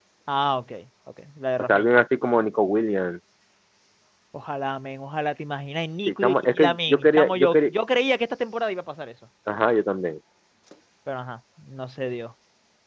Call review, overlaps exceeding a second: present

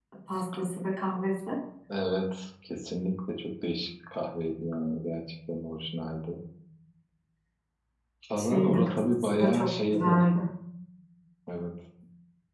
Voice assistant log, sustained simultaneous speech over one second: present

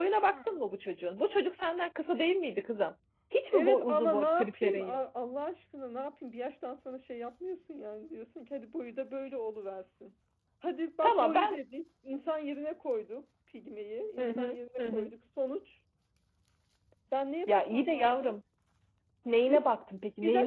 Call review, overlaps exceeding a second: present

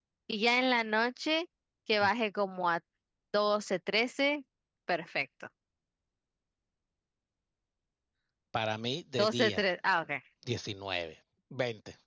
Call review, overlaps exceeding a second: none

